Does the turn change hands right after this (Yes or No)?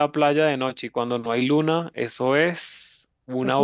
Yes